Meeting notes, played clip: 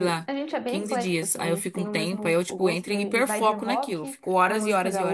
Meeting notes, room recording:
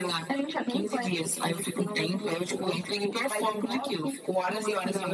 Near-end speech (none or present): none